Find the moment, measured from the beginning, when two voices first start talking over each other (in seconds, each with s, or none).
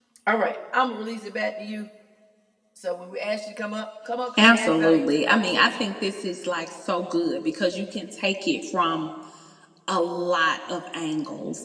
4.4 s